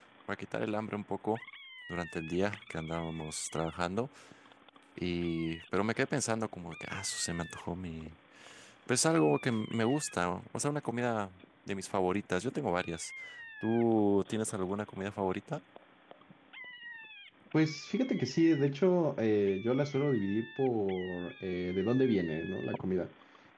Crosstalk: none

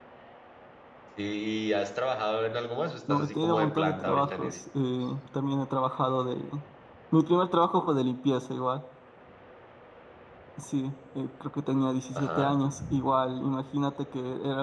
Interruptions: present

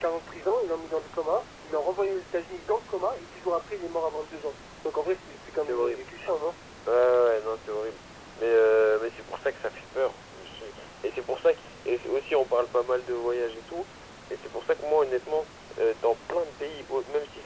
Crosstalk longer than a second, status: none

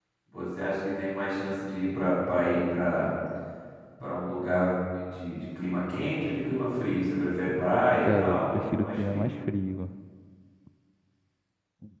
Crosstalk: present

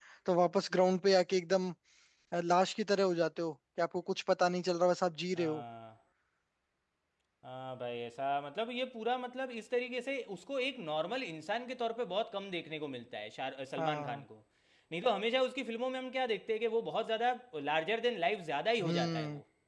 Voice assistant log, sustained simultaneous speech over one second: none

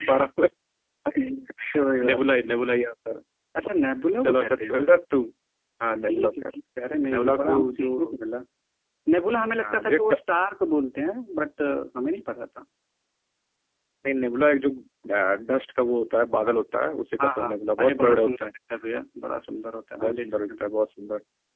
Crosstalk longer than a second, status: present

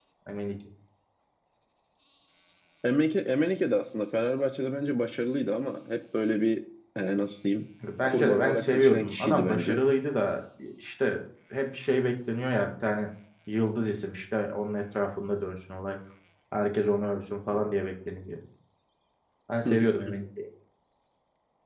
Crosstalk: present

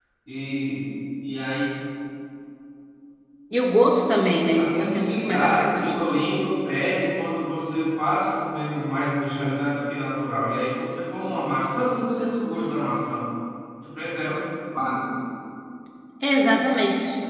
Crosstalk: present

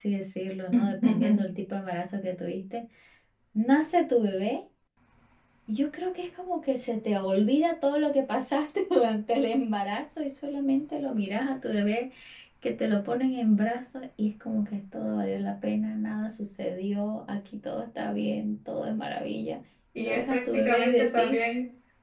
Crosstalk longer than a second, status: present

